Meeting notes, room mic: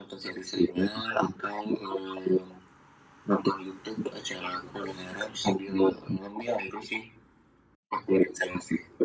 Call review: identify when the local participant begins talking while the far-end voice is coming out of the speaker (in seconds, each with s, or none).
none